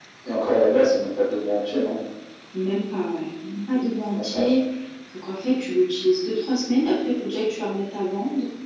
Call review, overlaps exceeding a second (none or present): none